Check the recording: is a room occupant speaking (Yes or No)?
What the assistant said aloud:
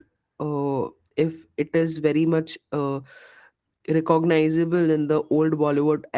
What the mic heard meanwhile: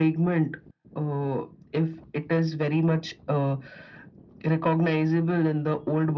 No